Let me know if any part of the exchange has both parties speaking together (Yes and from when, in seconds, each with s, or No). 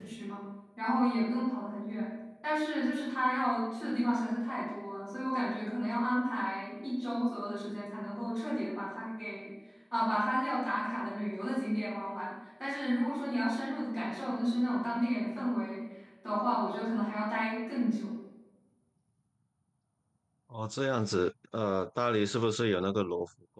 No